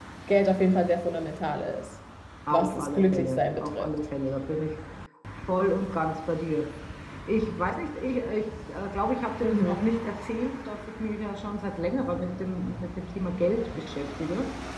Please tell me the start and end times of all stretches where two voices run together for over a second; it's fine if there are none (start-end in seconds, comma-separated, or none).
2.5-3.9